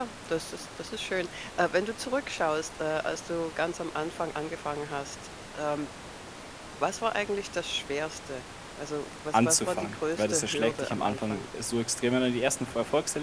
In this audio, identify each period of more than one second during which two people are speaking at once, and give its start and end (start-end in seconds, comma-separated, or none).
9.3-11.4